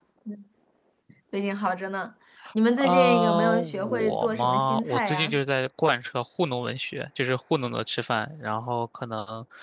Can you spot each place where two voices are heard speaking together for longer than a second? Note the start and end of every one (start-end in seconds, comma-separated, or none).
2.8-5.4